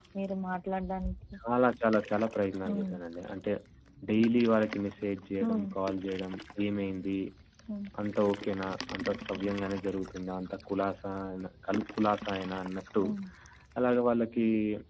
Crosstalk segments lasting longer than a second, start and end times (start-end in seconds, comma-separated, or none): none